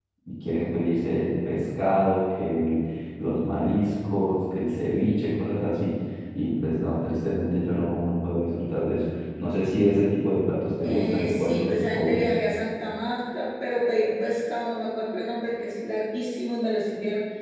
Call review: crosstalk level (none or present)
present